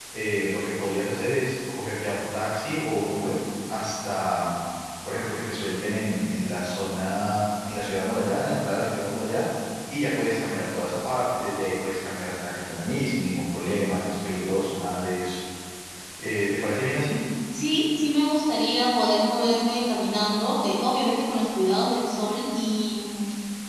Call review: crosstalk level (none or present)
none